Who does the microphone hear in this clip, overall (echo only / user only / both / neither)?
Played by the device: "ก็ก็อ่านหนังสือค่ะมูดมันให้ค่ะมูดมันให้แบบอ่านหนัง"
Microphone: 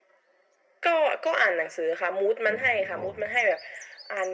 both